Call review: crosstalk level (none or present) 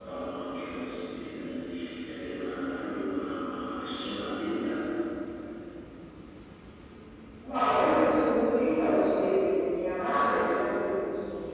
none